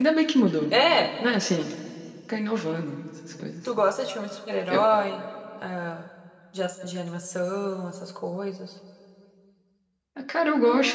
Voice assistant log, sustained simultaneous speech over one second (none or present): none